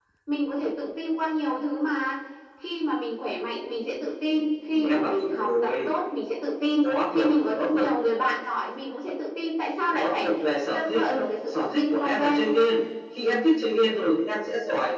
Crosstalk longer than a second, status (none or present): present